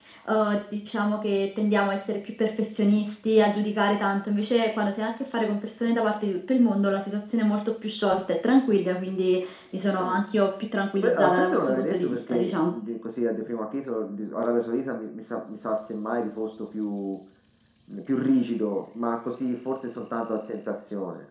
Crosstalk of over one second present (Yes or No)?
Yes